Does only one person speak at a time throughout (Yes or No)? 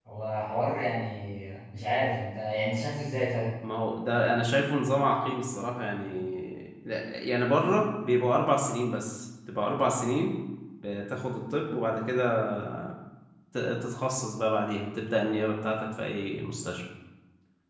Yes